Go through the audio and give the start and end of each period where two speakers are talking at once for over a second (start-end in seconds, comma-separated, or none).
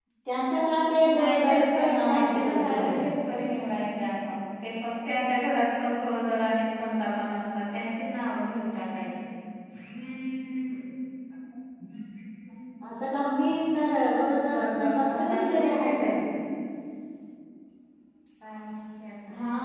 1.1-3.0, 14.5-16.1